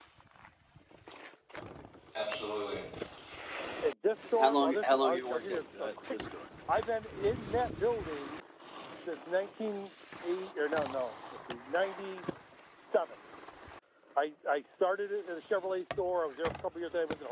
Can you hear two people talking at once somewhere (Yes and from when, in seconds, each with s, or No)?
Yes, from 4.3 s